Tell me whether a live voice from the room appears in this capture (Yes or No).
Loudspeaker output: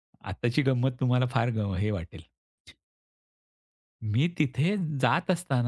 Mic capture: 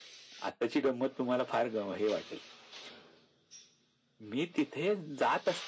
No